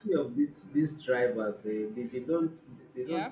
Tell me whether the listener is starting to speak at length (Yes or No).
No